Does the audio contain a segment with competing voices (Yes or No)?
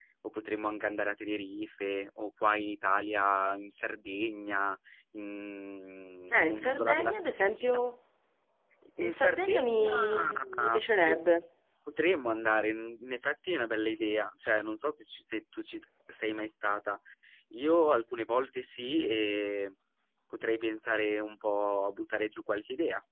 Yes